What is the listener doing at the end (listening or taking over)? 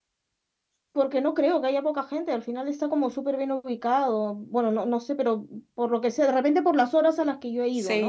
taking over